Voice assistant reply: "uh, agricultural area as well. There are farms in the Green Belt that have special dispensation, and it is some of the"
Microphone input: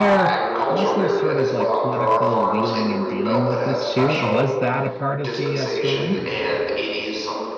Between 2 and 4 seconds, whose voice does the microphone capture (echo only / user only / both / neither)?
both